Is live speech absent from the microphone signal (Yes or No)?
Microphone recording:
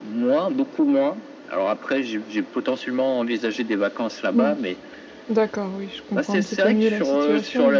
No